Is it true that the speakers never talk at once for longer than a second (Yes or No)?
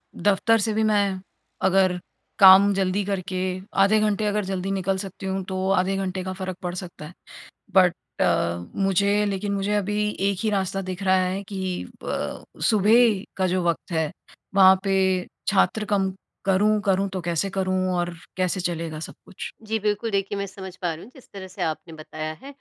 Yes